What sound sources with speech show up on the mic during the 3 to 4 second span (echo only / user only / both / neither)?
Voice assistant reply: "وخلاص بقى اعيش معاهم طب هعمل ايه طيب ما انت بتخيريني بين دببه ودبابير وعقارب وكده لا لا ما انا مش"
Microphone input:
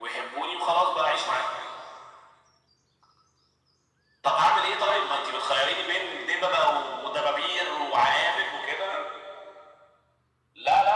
neither